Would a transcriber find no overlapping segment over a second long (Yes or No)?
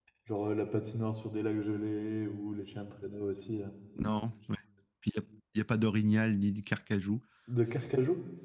Yes